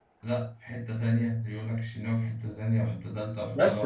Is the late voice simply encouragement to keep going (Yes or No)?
No